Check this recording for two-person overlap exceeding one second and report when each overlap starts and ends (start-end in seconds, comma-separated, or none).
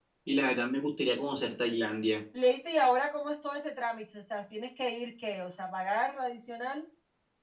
none